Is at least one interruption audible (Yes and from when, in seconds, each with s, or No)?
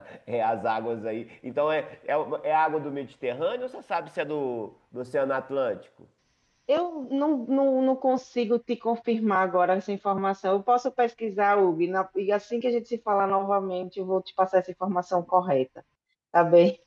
No